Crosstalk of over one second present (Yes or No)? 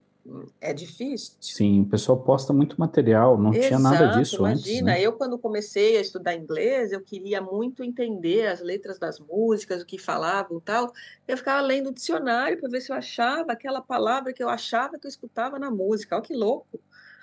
Yes